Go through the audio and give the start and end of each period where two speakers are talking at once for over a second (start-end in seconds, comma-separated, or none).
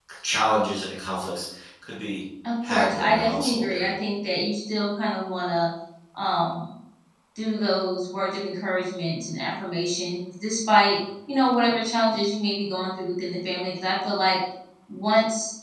2.6-3.9